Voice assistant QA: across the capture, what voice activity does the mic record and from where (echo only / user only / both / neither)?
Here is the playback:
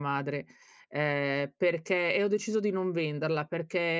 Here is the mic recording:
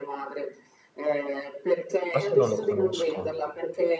both